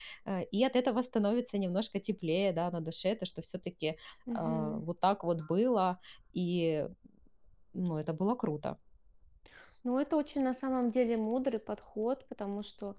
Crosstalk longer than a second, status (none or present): none